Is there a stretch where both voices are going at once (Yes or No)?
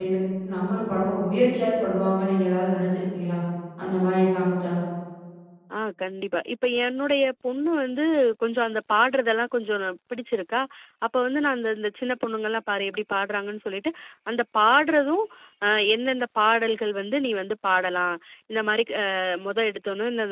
No